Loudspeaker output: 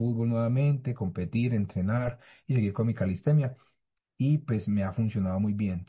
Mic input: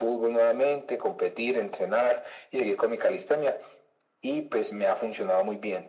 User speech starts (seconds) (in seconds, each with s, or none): none